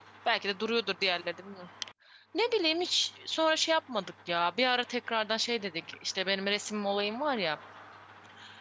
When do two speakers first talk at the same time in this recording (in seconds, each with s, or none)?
none